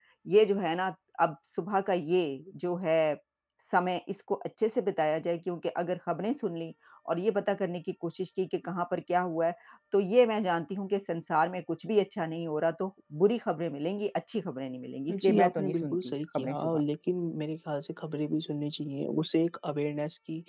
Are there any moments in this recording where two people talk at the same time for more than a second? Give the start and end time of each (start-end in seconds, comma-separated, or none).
15.1-16.8